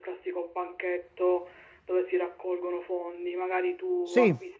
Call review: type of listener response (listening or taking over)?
listening